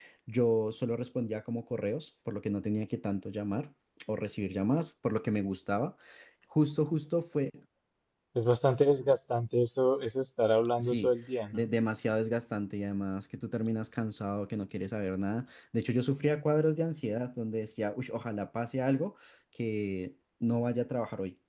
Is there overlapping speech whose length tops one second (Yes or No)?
No